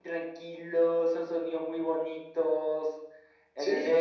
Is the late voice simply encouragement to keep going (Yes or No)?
Yes